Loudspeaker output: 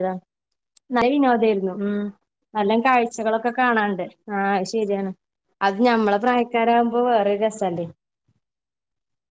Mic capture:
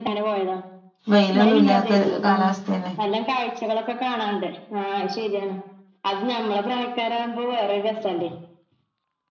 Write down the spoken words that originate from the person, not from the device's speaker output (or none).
വെയിലൊന്നും ഇല്ലാത്ത കാലാവസ്ഥന്നെ.